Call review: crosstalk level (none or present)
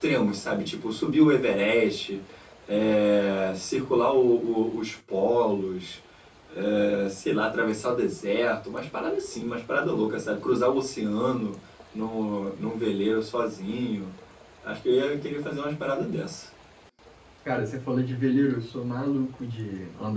none